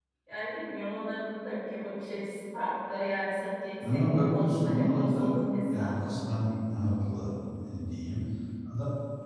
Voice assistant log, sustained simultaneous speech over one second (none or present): present